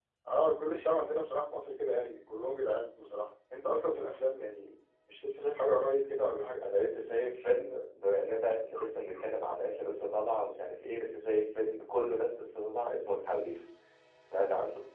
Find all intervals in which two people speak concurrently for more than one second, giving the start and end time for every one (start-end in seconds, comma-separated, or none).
none